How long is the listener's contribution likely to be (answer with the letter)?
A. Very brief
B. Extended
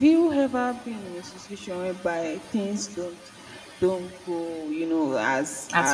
A